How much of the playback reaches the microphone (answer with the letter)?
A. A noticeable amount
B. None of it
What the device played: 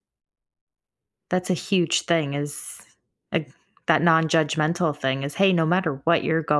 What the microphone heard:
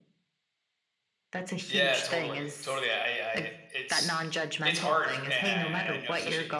A